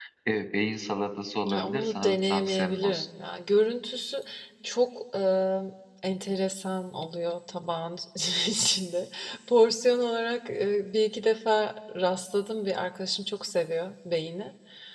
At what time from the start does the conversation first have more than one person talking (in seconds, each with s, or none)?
1.4 s